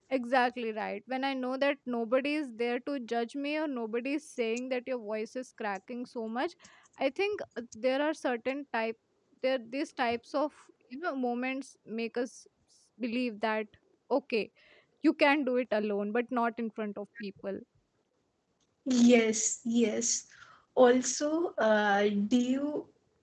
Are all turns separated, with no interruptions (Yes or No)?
Yes